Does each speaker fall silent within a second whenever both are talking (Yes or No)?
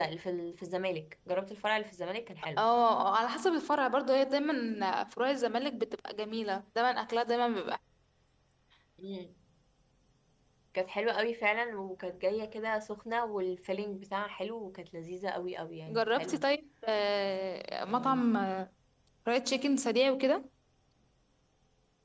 Yes